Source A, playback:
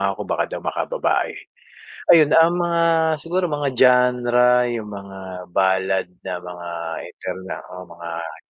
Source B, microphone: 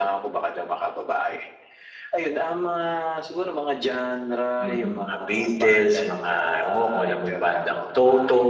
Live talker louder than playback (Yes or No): Yes